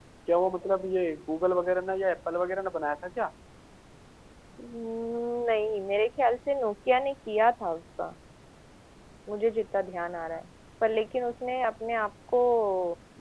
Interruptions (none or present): none